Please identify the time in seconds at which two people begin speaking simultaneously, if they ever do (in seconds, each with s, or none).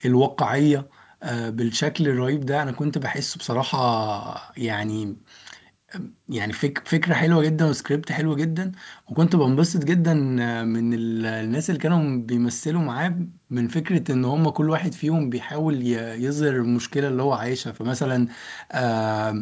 none